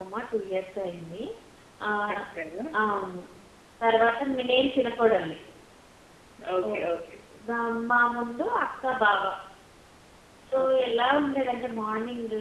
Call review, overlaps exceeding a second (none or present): none